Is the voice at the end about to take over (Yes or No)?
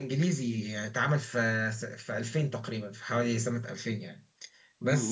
Yes